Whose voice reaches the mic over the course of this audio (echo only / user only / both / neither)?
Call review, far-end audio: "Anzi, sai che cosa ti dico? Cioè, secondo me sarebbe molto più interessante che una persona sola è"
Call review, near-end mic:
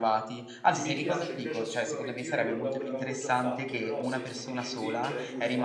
both